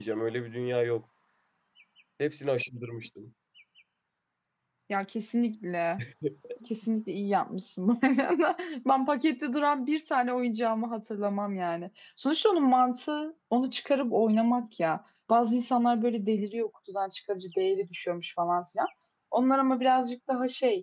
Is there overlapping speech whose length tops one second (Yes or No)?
No